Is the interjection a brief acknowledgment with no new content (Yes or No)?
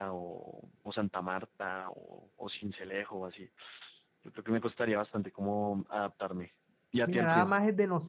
No